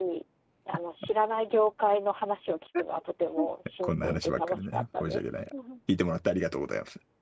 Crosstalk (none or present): present